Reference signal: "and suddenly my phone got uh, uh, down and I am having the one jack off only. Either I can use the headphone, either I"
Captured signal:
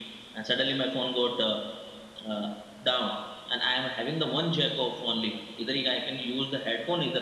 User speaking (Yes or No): No